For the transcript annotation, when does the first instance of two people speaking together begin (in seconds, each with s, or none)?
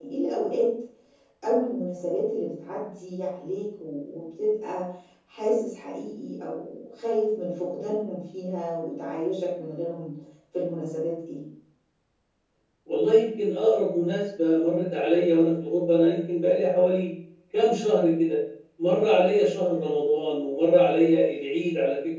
none